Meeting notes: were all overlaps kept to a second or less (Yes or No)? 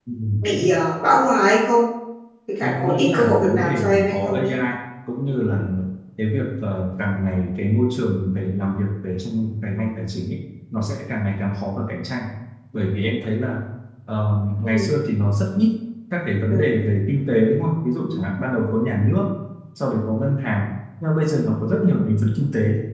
No